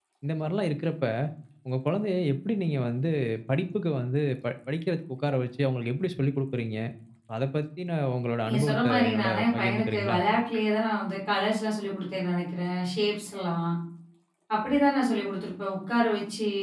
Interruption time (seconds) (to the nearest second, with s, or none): 8 s